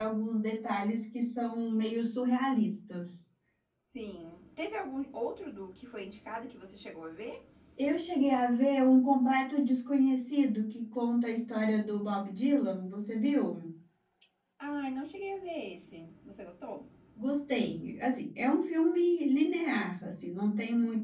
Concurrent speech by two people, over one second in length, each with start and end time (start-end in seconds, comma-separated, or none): none